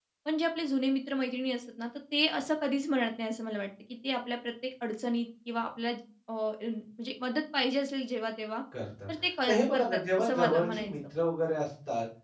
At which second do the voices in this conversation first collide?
9.5 s

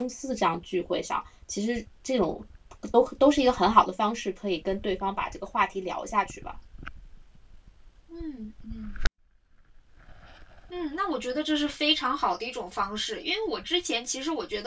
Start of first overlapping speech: none

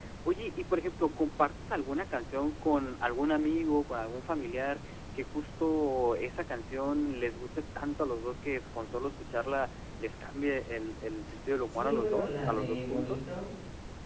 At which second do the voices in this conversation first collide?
11.7 s

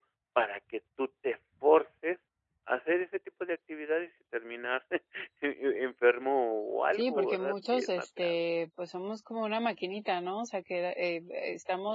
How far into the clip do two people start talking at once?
7.0 s

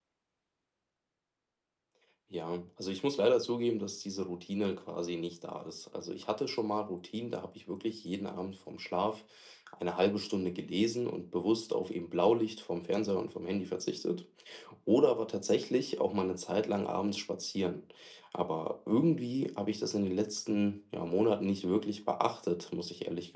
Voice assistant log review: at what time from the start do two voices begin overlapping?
none

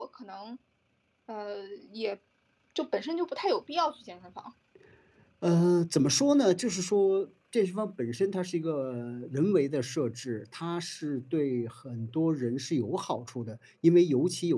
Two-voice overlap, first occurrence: none

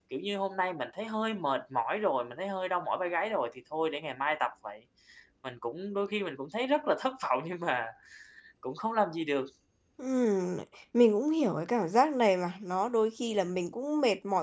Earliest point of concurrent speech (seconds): none

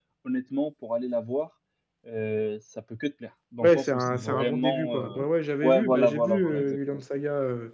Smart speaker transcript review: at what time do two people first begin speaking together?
3.6 s

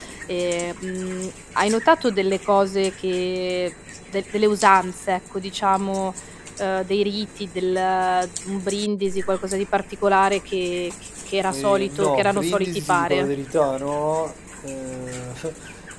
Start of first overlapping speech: 11.5 s

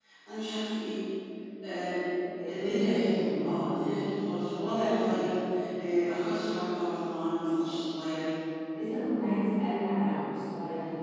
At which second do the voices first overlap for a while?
2.5 s

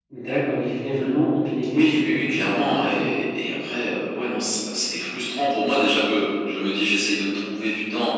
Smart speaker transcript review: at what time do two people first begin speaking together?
1.7 s

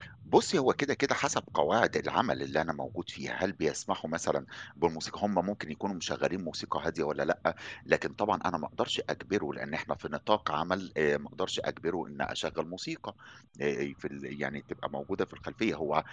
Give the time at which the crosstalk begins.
none

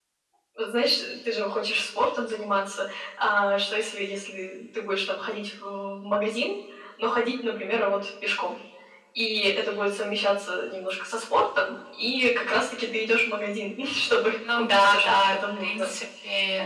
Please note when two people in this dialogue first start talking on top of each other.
14.4 s

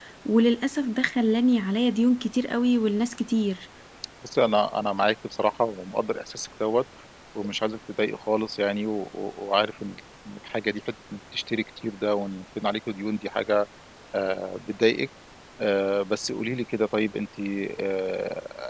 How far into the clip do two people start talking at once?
none

